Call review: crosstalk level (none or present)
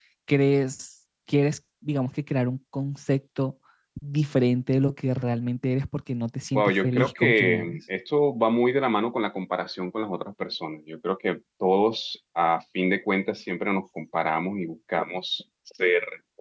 present